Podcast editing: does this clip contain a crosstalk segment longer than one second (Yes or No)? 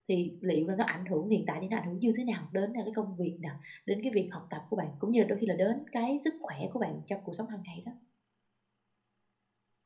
No